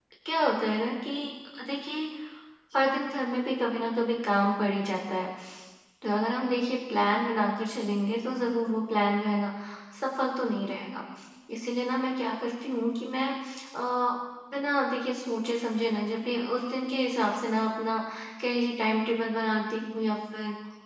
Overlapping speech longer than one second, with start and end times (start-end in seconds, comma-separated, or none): none